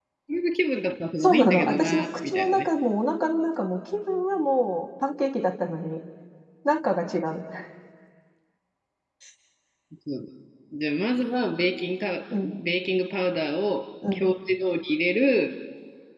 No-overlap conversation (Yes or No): No